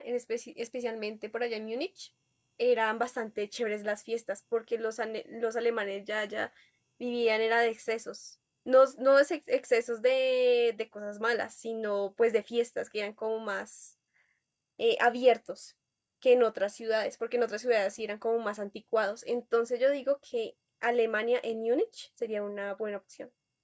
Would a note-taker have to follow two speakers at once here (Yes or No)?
No